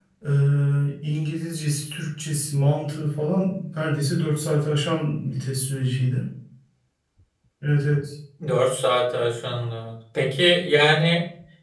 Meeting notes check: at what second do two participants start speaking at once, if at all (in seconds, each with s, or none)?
none